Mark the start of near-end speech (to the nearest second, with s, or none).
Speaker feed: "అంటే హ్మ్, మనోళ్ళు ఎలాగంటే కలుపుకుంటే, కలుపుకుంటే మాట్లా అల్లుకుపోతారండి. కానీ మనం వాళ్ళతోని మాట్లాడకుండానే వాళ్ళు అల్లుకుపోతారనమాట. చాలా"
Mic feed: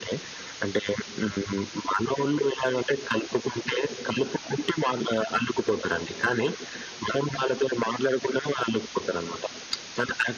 none